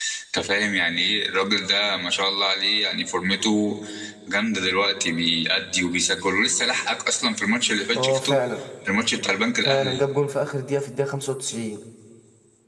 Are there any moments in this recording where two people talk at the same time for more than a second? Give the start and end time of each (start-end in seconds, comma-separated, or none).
none